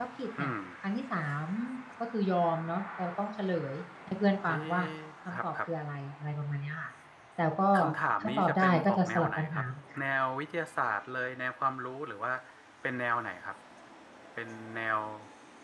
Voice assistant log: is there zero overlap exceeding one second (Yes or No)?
No